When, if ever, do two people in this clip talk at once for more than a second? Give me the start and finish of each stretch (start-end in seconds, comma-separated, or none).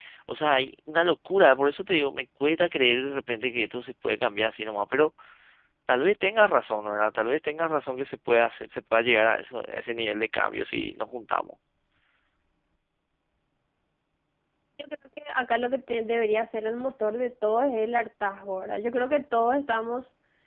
none